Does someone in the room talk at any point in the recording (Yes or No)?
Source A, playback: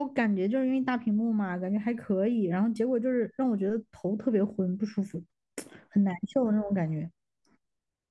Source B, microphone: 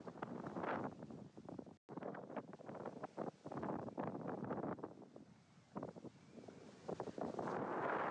No